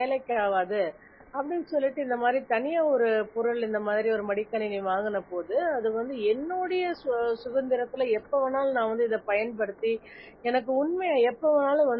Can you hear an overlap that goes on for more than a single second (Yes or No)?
No